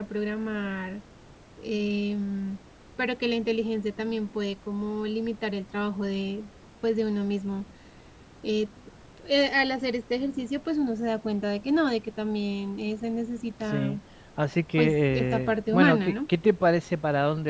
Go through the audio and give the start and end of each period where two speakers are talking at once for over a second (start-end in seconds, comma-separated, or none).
14.8-16.1